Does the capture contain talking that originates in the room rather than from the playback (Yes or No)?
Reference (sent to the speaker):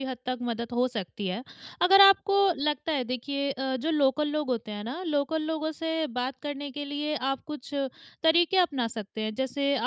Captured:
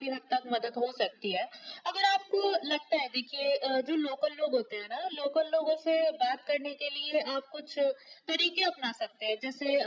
No